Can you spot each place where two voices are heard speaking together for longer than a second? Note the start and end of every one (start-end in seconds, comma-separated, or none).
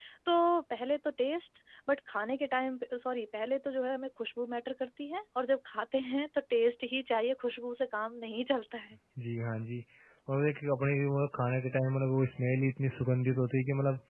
none